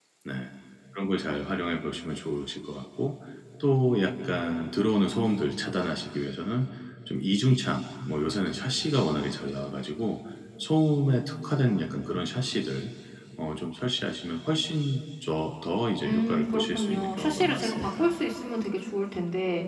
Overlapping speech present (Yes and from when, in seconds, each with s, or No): Yes, from 16.0 s